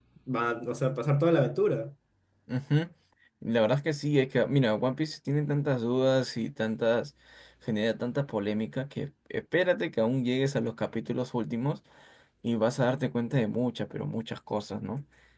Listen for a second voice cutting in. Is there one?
No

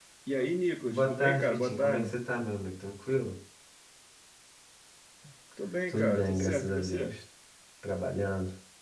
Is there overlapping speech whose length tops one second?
Yes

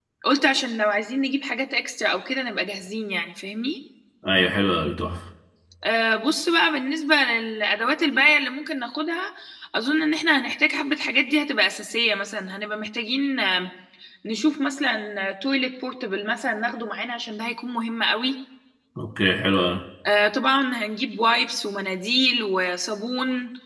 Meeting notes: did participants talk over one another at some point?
No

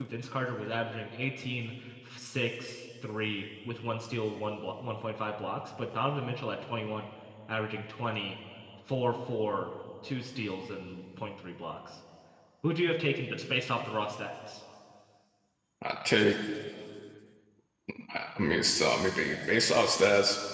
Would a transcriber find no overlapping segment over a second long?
Yes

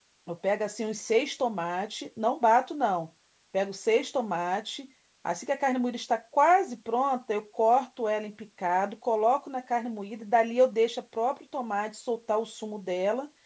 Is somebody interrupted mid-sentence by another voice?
No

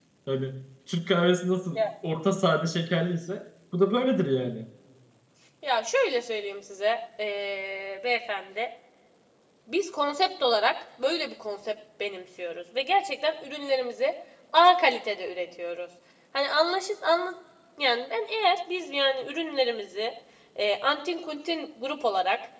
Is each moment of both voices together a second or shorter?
Yes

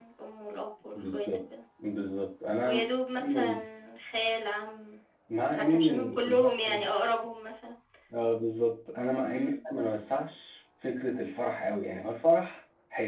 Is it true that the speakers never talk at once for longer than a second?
No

